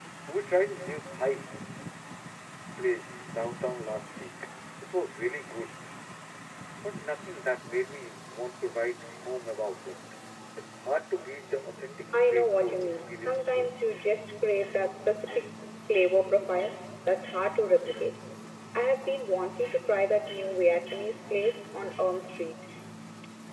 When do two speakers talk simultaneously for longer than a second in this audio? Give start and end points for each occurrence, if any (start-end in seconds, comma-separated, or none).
12.3-13.7